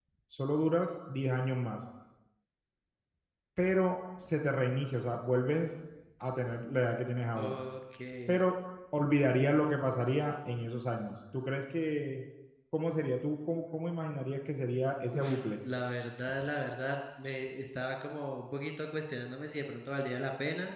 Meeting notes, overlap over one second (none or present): none